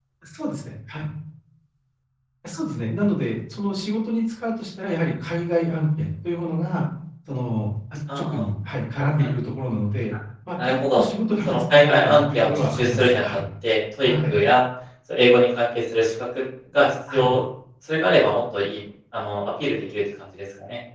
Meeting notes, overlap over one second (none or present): present